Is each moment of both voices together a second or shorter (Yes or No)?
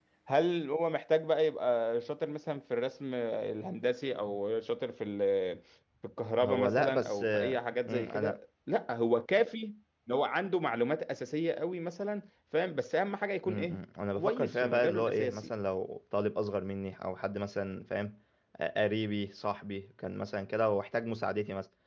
No